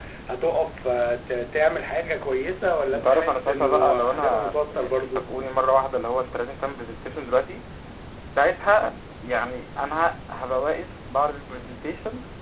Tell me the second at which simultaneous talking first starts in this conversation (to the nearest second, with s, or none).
3 s